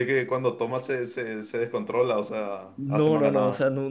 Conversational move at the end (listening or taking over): taking over